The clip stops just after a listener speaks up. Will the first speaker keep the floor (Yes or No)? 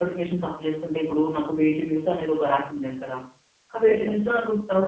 Yes